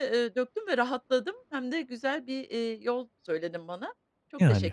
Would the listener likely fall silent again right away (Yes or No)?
No